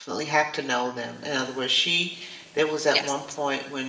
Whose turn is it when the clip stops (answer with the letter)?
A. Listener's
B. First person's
B